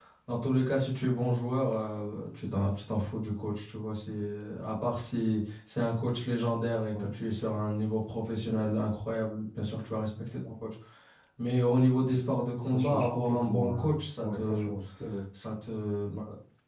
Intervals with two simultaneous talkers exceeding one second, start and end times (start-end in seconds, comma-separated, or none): 12.6-14.7